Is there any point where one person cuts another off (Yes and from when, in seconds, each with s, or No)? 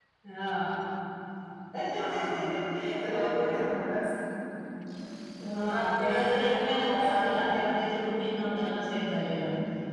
Yes, from 2.0 s